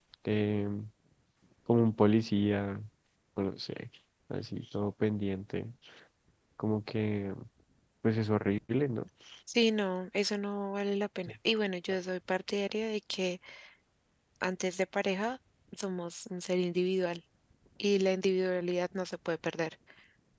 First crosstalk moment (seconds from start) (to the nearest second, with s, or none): none